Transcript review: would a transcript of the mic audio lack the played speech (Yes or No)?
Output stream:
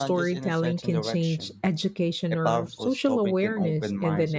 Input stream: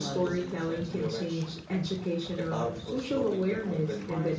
No